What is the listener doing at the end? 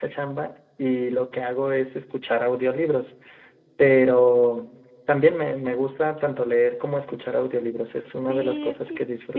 taking over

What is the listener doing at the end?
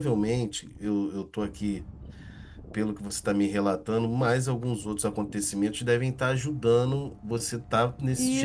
taking over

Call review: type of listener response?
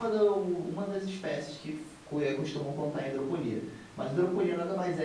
listening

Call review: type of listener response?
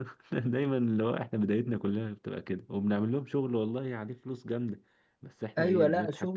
taking over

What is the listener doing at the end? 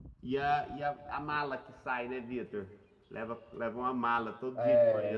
taking over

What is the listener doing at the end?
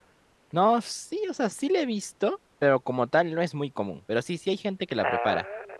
listening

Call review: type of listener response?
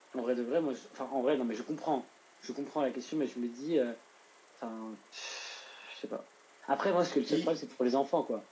listening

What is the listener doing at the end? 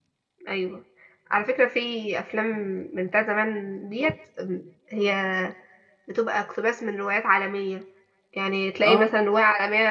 listening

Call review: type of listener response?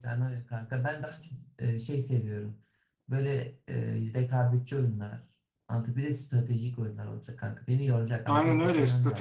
taking over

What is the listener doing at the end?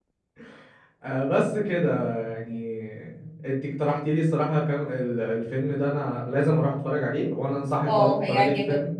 taking over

